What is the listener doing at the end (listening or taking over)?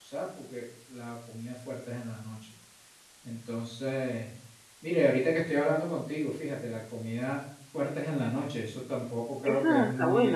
taking over